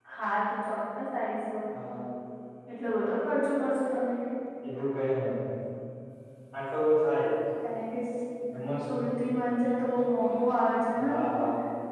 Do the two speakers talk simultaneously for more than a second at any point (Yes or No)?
No